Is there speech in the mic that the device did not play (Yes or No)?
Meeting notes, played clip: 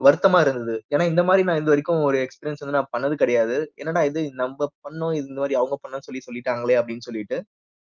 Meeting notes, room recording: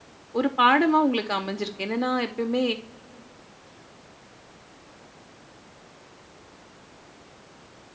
Yes